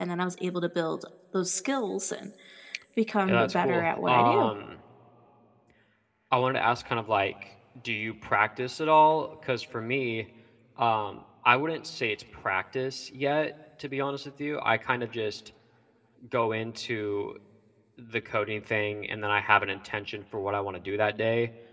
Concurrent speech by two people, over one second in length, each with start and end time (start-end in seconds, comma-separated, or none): 3.3-4.5